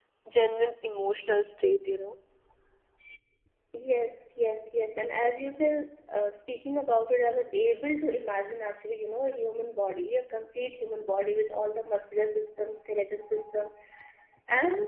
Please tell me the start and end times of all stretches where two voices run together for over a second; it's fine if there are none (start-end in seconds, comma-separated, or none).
none